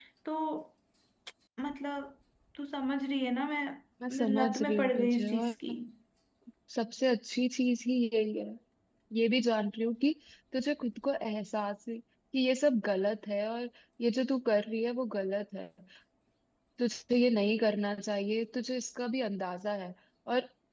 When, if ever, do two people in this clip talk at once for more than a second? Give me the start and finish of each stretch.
4.2-5.5

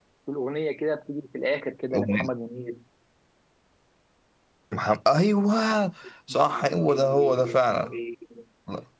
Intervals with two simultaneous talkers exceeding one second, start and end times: 6.5-7.9

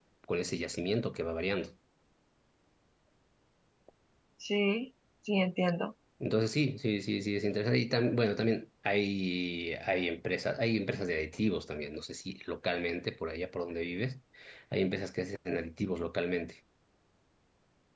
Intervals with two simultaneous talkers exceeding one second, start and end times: none

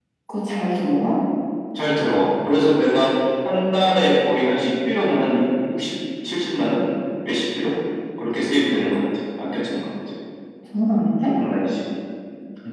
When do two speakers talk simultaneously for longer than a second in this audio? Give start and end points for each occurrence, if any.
none

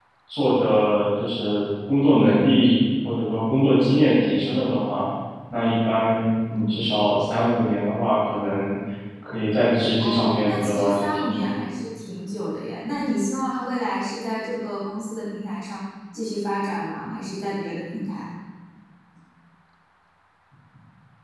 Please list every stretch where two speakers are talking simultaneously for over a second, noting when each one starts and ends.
10.0-11.5

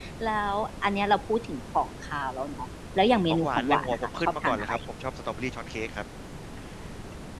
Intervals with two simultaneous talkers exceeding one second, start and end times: 3.3-4.7

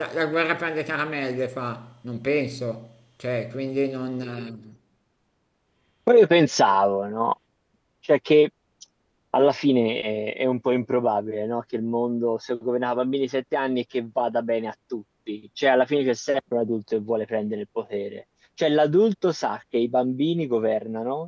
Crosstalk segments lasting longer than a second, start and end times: none

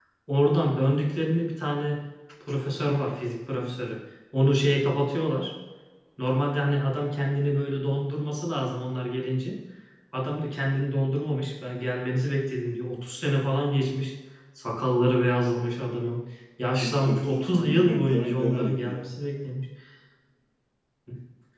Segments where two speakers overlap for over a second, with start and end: 16.8-19.1

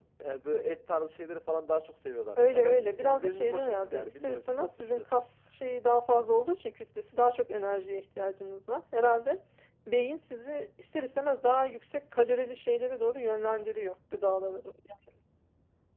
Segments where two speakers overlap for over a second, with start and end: 2.5-5.3

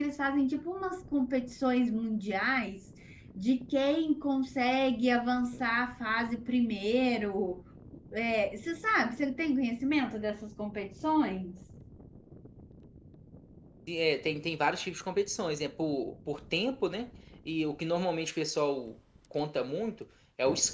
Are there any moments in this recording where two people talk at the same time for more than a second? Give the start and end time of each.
none

